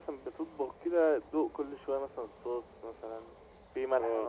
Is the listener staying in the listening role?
No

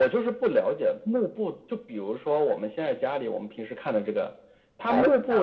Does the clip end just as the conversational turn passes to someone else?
No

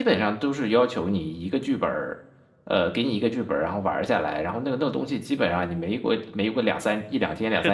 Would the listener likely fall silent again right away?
No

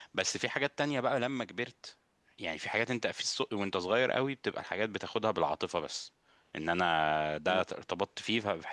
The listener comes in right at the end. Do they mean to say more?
No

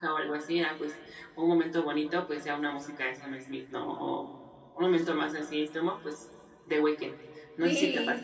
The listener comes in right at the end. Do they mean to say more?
Yes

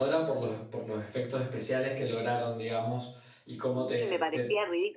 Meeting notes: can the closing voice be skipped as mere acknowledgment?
No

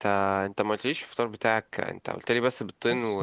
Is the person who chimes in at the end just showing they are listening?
No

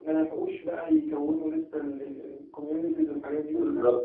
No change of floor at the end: No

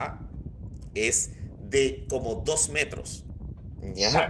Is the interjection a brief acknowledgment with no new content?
No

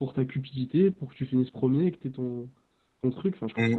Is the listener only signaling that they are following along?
No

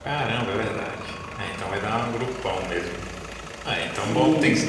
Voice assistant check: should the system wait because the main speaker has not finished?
No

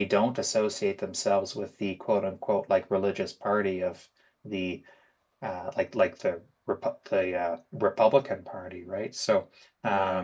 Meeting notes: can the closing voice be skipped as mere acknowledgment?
Yes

